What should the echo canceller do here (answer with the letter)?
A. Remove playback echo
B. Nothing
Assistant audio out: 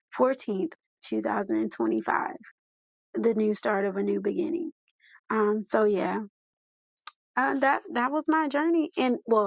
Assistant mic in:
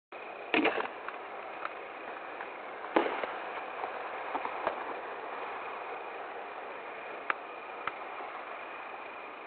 B